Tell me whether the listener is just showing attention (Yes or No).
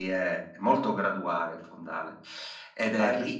No